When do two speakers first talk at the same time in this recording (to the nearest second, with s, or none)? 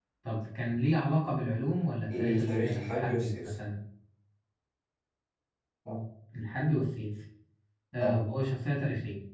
2 s